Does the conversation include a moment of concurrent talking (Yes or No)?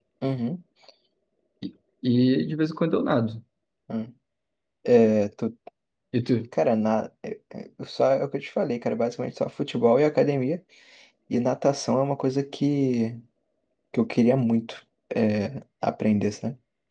No